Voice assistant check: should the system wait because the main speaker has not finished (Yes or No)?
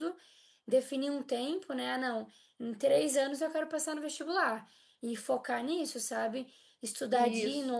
Yes